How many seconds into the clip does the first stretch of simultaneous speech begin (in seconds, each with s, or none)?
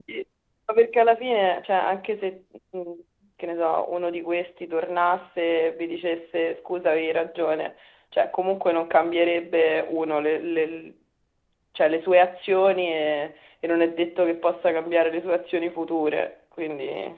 none